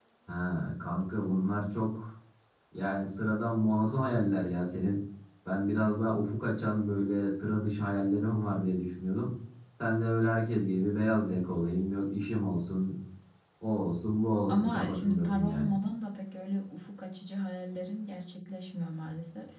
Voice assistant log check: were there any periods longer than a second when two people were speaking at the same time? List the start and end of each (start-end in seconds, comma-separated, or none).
14.5-15.7